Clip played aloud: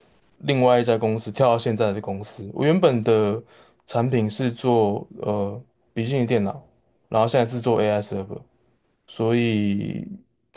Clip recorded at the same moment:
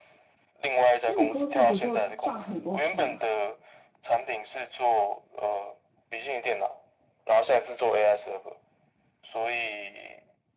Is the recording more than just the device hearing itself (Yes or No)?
Yes